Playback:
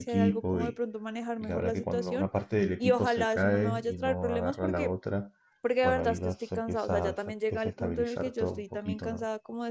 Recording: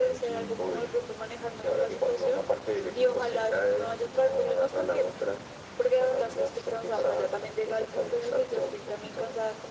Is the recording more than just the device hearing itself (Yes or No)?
No